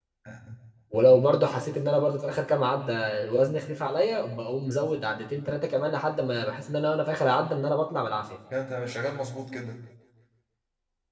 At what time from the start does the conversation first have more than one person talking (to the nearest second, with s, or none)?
none